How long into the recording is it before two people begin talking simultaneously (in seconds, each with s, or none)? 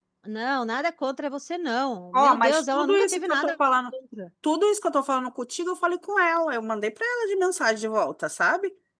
2.1 s